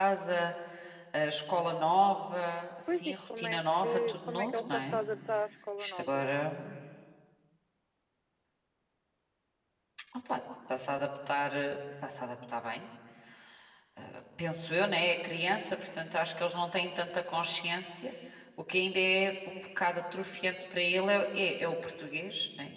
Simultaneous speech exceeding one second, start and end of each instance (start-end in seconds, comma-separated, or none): 2.9-5.0